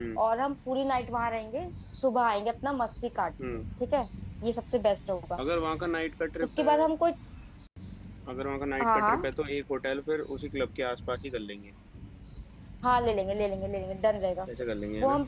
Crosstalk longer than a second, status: none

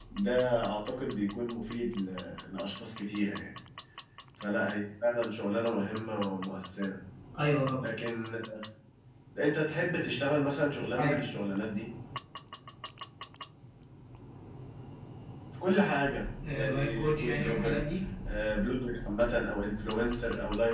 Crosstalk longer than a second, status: present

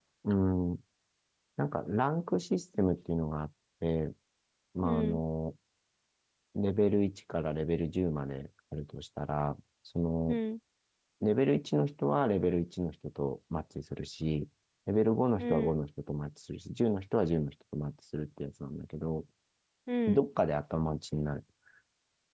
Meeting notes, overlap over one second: none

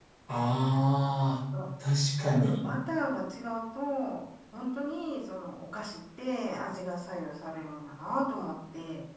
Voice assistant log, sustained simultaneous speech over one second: none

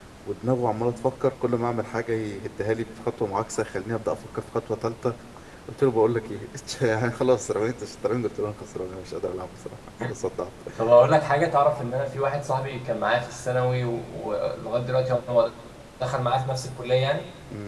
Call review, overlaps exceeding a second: none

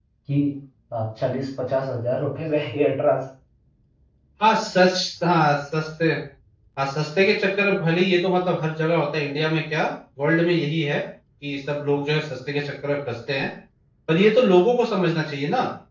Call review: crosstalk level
none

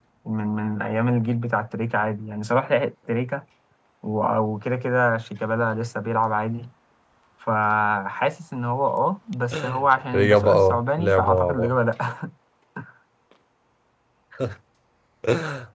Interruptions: present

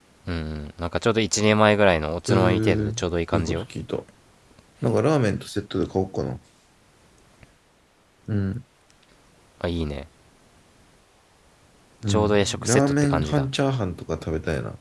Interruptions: present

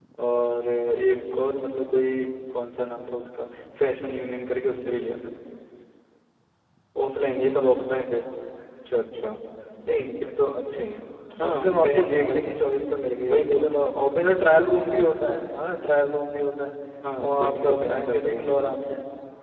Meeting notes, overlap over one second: present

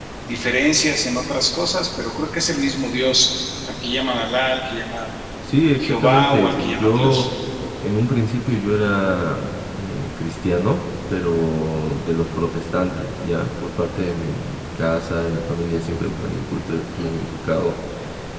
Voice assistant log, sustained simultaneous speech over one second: present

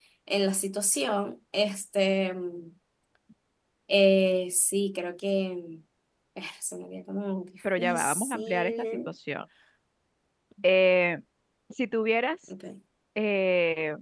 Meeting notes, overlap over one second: present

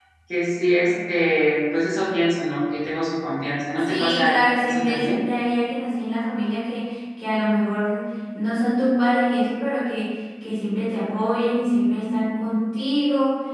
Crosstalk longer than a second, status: present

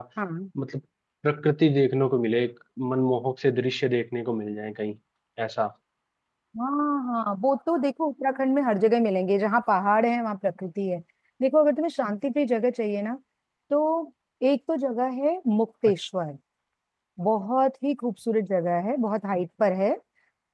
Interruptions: none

